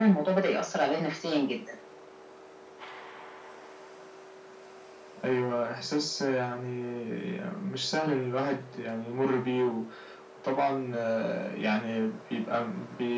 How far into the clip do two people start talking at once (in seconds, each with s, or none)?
none